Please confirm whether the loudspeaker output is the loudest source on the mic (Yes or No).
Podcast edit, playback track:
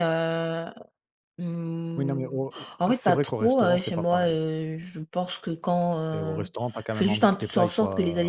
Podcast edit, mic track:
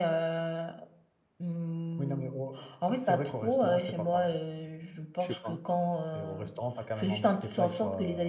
Yes